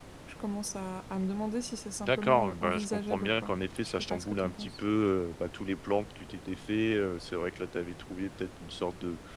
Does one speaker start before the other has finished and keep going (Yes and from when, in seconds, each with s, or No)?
Yes, from 2.0 s